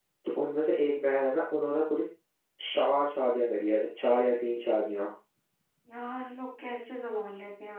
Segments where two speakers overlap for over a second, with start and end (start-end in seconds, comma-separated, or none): none